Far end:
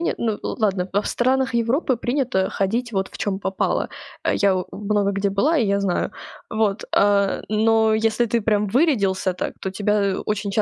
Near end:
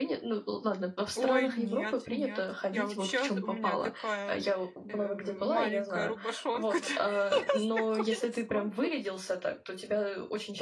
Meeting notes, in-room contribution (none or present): present